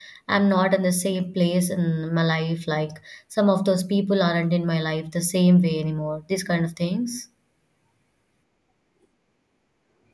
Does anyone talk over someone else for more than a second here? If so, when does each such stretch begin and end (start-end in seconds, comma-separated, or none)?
none